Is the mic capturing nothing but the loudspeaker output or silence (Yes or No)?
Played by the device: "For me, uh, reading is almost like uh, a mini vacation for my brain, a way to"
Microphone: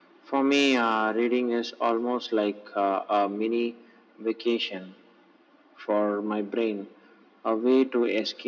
Yes